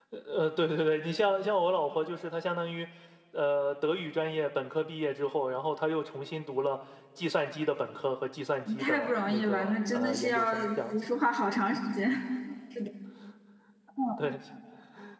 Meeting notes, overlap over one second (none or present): present